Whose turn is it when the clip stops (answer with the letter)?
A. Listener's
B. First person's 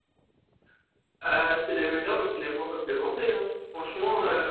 A